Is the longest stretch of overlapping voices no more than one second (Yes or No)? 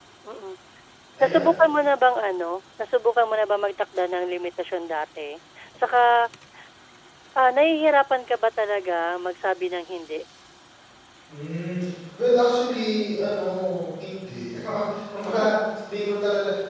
Yes